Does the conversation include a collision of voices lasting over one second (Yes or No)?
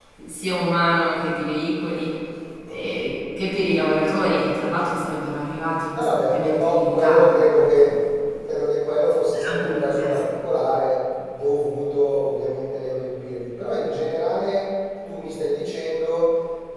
Yes